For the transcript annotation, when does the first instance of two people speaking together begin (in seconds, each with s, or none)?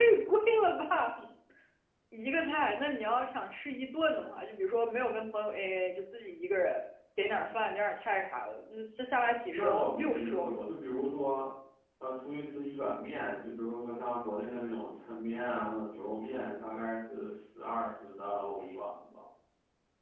9.5 s